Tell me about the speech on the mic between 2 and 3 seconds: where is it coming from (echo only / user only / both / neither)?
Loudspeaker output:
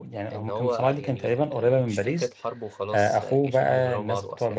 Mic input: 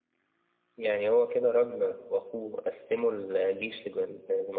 user only